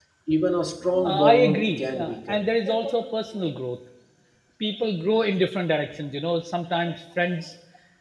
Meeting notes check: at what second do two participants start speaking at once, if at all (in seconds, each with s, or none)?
1.0 s